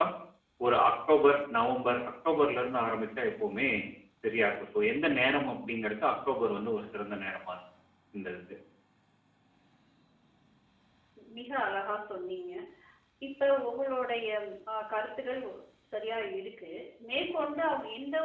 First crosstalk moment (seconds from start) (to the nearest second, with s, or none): none